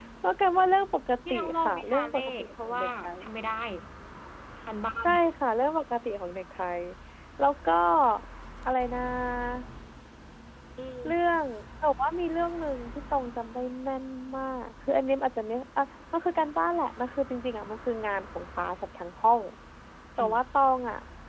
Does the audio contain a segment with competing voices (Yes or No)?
Yes